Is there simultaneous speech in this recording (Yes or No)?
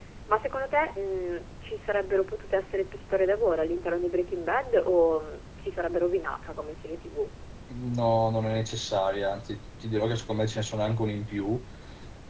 No